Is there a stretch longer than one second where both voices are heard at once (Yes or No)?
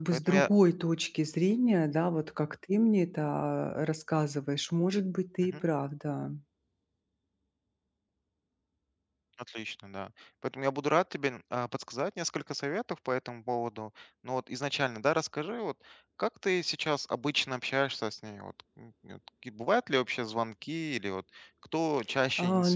No